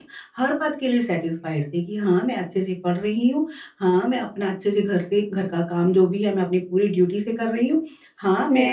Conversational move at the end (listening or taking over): listening